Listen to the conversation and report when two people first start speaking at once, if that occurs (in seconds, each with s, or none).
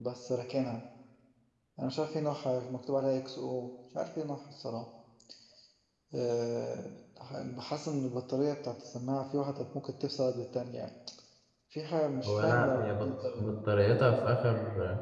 12.2 s